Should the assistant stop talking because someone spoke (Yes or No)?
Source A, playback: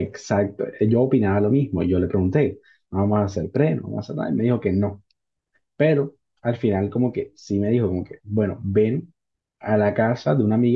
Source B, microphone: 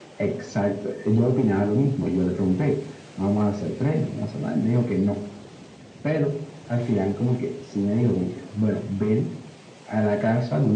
No